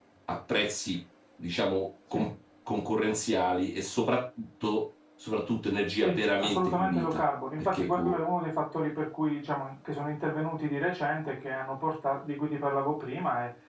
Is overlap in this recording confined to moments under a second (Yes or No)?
No